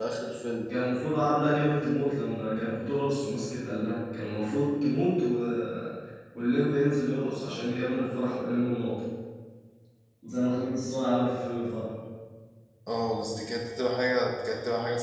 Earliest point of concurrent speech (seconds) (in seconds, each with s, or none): none